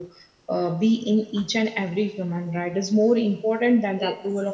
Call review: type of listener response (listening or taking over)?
listening